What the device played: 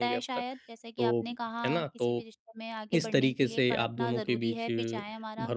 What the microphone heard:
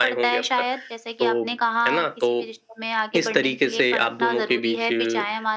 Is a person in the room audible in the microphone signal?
No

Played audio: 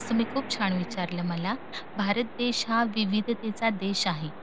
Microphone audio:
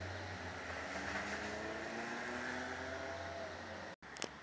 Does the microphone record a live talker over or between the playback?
No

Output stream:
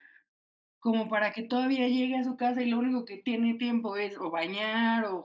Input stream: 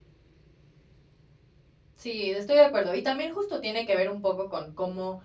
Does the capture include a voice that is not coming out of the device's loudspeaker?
Yes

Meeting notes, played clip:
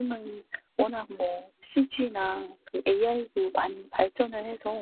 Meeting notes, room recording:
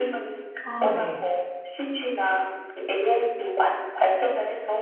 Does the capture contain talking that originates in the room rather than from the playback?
Yes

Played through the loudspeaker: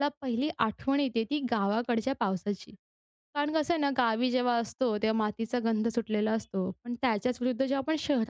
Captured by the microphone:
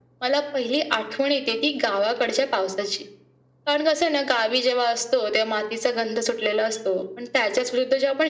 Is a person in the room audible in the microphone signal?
No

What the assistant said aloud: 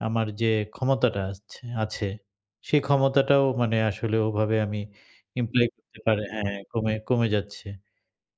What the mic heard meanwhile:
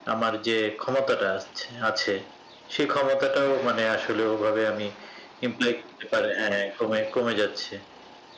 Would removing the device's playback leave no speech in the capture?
Yes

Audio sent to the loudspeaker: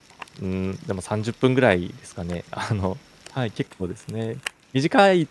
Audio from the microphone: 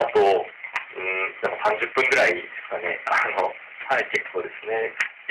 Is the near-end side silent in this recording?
Yes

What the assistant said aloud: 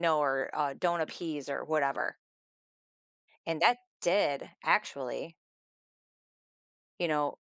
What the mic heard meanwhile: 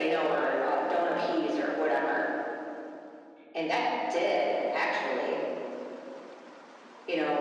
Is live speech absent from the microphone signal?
Yes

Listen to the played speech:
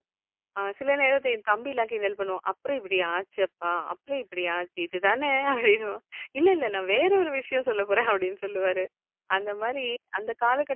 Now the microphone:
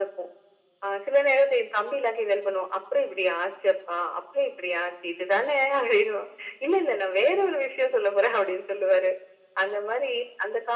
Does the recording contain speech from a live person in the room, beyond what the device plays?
No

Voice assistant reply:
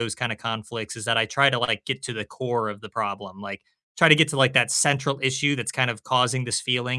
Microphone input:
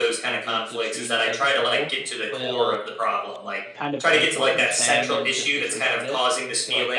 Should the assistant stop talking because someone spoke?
Yes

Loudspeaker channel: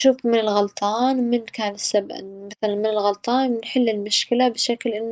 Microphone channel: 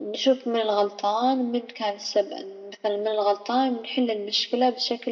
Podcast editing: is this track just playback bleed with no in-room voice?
Yes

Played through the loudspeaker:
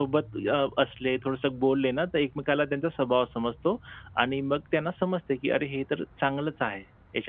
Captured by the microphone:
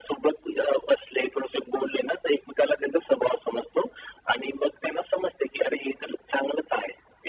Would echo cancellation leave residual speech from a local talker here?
No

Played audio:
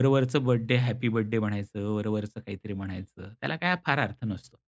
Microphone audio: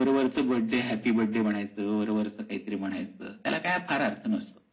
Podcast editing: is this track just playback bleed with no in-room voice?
Yes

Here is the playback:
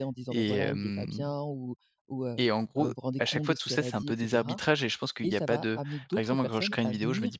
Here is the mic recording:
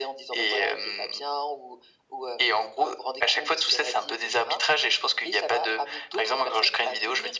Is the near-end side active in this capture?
No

